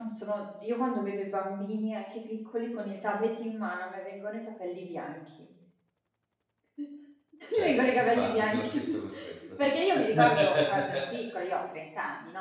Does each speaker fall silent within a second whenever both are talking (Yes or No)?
No